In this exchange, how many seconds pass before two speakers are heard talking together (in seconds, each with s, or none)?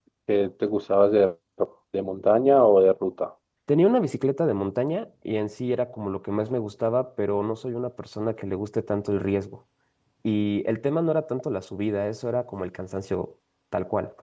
none